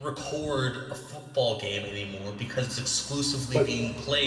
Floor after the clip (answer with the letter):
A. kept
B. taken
A